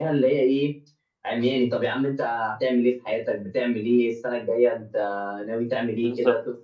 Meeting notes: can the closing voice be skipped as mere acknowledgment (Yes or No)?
Yes